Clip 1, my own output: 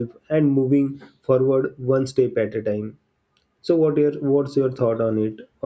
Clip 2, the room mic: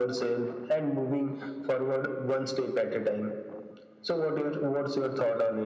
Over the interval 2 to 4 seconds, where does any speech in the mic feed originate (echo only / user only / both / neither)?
echo only